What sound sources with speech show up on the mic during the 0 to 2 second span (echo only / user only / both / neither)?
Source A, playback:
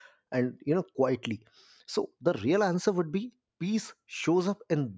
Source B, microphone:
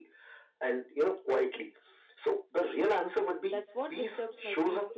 echo only